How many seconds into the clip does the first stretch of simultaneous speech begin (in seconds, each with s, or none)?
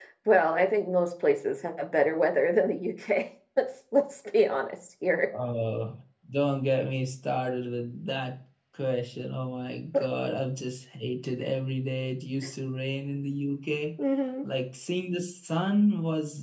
none